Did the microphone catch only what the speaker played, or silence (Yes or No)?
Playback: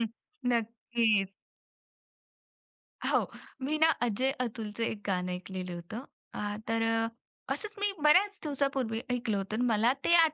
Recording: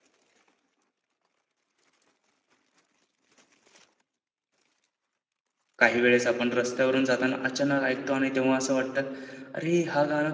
No